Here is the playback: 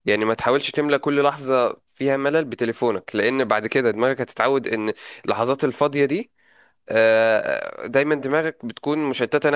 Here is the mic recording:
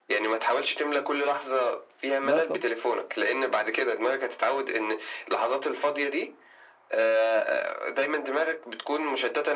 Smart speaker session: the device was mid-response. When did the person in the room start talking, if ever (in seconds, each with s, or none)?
2.2 s